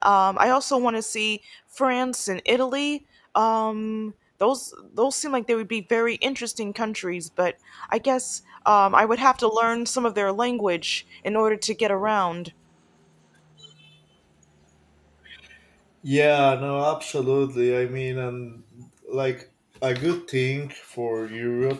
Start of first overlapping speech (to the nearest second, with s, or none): none